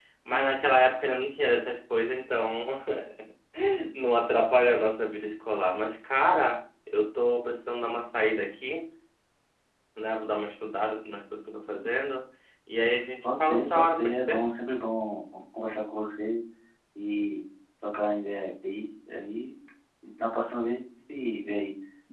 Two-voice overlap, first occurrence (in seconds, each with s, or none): 13.2 s